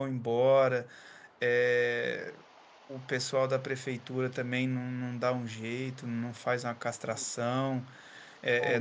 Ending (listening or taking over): listening